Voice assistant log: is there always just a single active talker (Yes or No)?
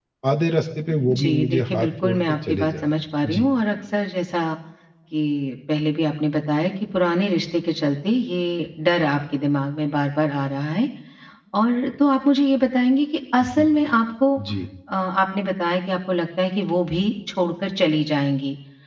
No